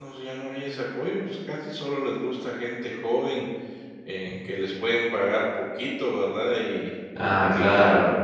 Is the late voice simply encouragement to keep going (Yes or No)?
No